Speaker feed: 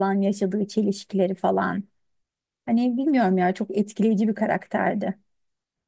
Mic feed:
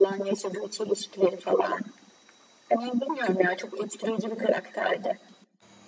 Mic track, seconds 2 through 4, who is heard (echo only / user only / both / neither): echo only